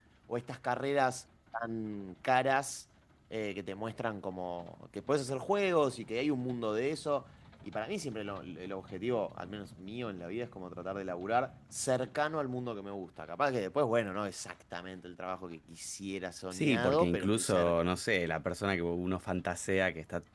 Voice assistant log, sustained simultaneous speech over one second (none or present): present